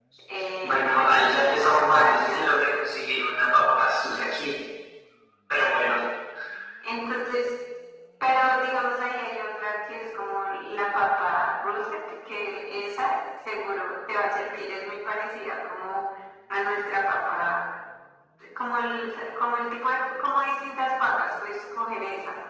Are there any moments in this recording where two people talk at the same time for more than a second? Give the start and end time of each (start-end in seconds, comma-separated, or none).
0.6-2.5